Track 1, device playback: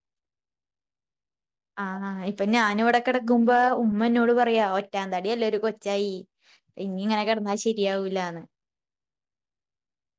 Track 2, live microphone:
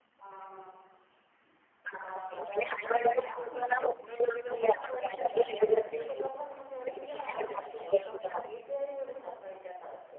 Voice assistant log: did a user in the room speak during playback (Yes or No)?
Yes